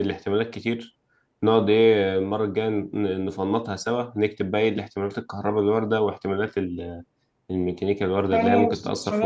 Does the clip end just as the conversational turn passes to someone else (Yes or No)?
Yes